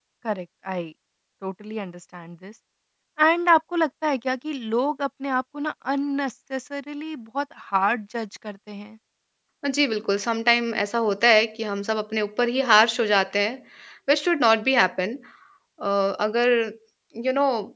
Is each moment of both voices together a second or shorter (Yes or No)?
Yes